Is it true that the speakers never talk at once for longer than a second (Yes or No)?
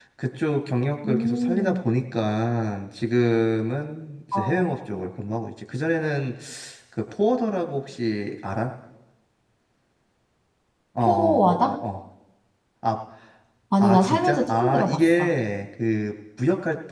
No